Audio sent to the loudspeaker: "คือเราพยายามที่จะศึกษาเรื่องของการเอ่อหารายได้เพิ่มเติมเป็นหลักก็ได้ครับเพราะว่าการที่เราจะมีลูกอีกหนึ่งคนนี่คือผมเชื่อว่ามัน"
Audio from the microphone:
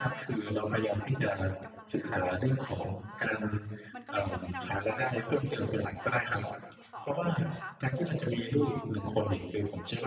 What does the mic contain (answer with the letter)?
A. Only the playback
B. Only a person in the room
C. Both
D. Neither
C